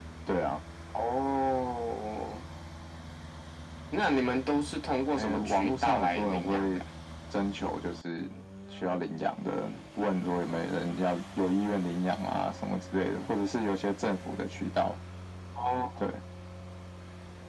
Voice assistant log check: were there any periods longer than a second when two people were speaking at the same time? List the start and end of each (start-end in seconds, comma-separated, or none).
5.2-6.8